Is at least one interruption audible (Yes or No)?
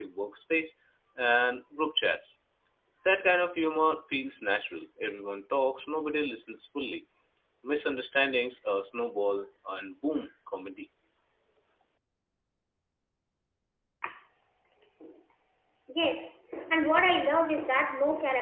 No